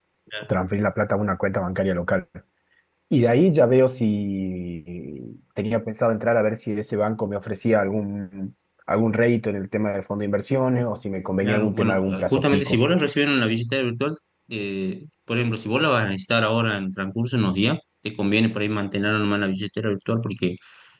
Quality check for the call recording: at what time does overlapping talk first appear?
11.4 s

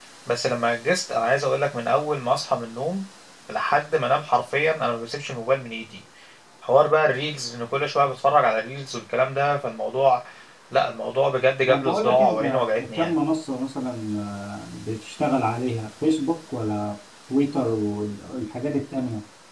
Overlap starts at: 11.7 s

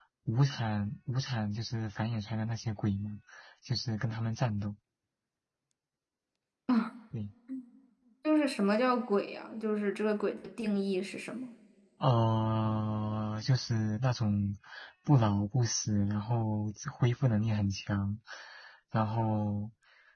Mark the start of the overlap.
none

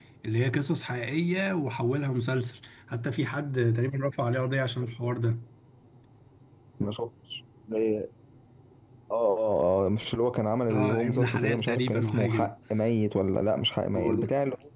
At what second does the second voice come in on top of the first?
10.7 s

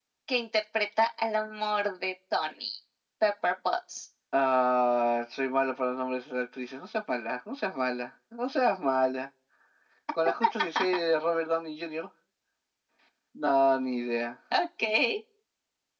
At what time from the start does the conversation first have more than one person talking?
none

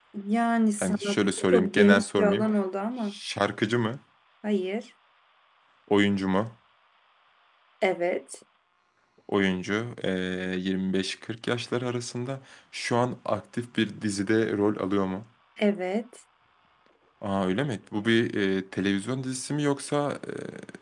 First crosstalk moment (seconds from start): 0.8 s

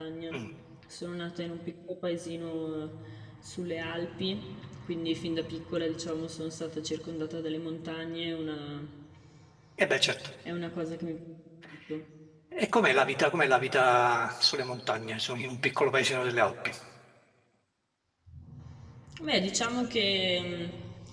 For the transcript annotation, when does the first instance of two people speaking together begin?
none

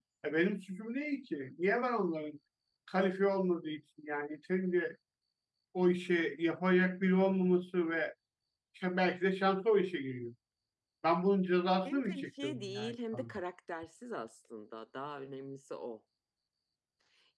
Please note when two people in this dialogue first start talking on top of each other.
11.8 s

